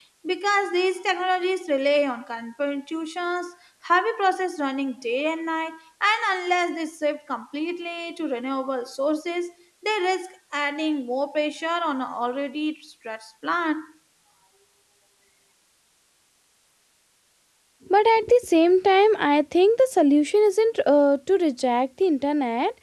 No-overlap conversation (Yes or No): Yes